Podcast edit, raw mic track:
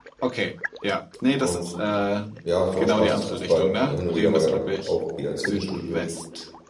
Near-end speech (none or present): present